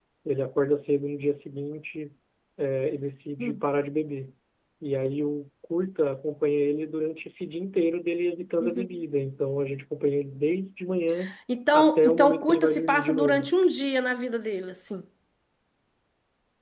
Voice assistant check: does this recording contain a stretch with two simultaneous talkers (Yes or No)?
Yes